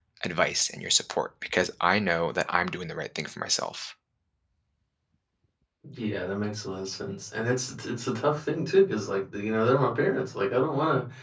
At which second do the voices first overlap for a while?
none

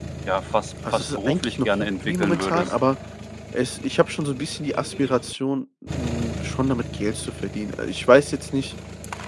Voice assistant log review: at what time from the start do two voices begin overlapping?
0.9 s

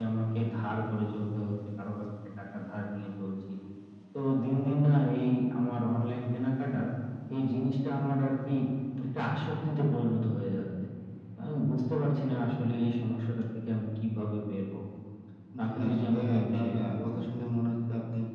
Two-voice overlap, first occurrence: 15.7 s

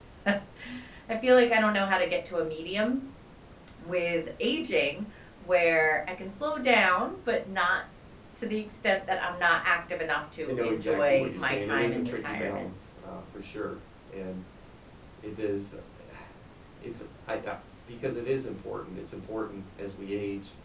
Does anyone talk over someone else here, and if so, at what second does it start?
10.5 s

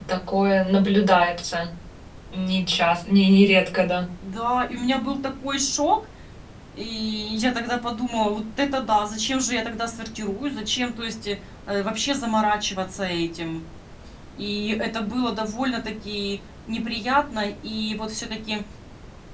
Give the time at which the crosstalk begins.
none

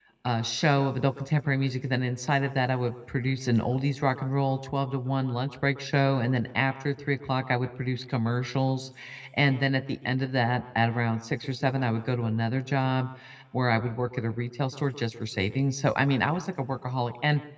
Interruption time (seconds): none

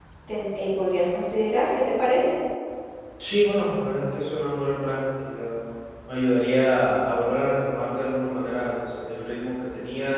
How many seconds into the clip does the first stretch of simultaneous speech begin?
none

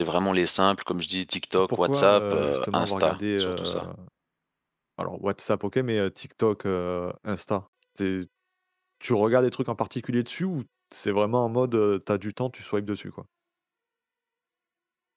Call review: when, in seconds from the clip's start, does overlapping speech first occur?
1.7 s

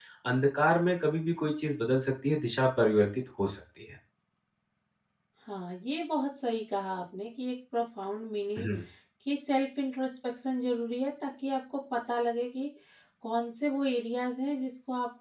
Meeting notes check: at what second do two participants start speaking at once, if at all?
none

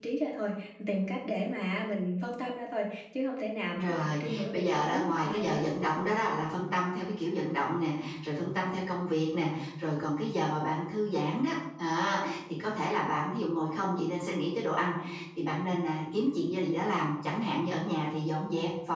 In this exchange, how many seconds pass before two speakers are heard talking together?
3.8 s

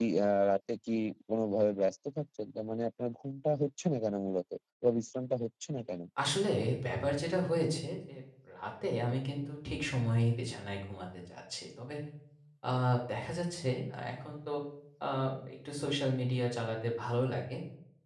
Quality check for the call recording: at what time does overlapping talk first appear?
none

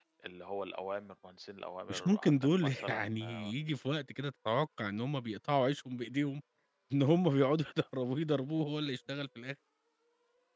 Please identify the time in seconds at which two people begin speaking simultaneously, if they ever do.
1.9 s

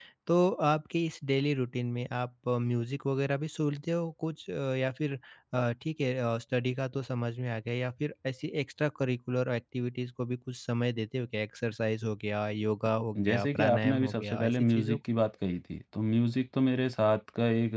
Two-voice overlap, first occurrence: 13.2 s

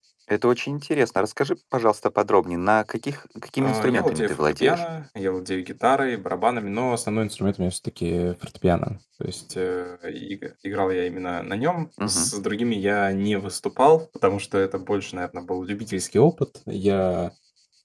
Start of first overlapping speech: 3.6 s

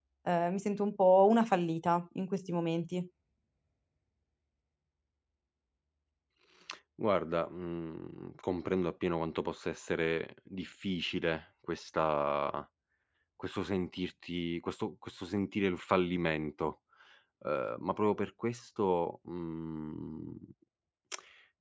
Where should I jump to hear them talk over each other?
none

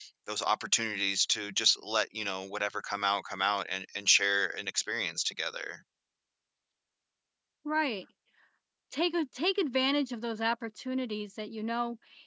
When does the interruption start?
none

